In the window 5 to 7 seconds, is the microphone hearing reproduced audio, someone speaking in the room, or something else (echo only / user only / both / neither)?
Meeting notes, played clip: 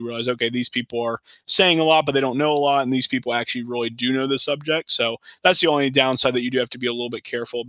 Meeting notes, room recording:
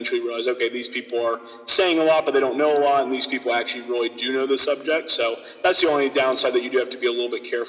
echo only